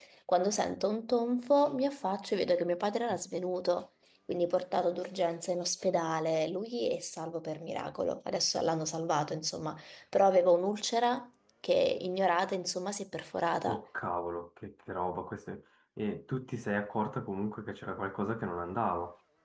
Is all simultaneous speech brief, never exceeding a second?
Yes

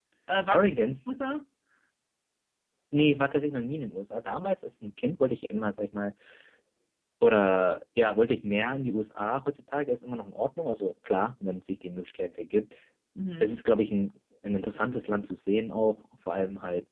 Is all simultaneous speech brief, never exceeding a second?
Yes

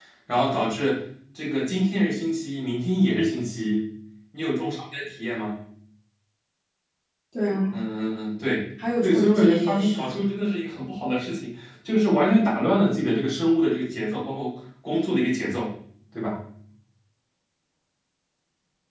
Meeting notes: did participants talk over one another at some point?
Yes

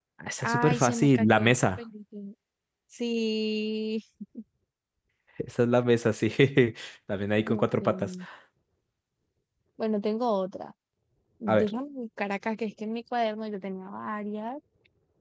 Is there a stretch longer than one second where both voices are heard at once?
Yes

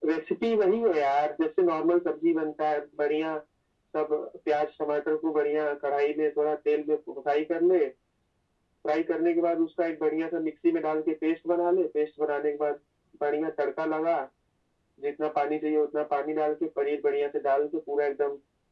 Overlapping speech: No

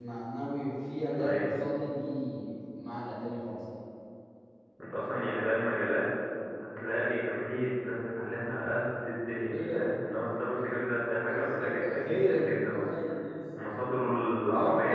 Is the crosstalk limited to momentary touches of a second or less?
No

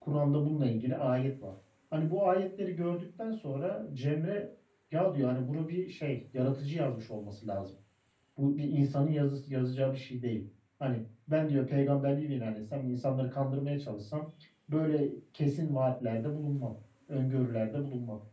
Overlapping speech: No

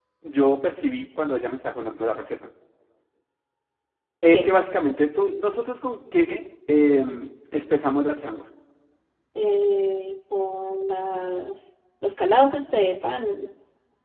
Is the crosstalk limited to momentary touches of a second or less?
Yes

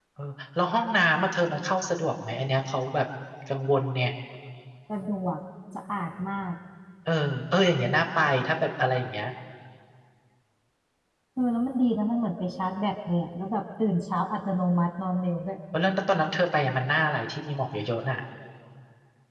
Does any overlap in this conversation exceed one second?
No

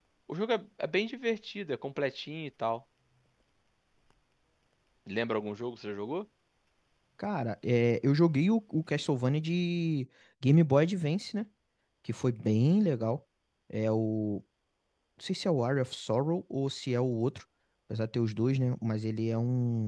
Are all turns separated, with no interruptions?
Yes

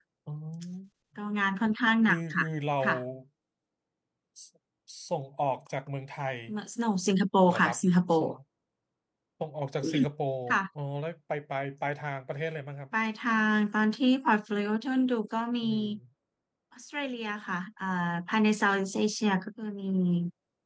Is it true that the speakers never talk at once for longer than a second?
Yes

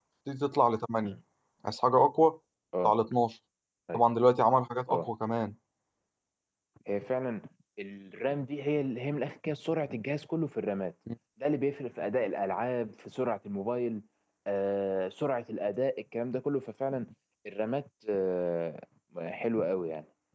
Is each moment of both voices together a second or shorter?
Yes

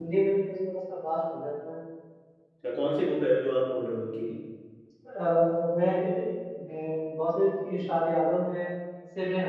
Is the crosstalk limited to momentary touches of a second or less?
Yes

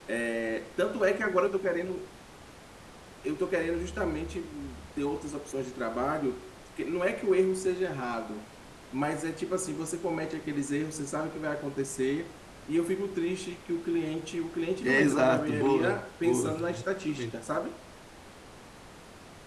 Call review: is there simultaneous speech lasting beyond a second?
Yes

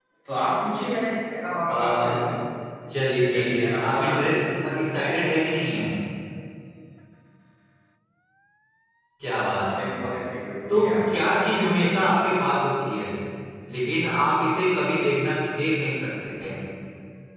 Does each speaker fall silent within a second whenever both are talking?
No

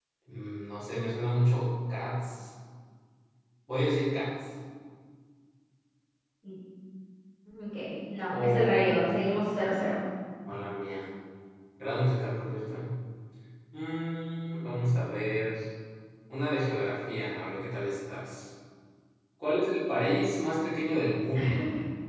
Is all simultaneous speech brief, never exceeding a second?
No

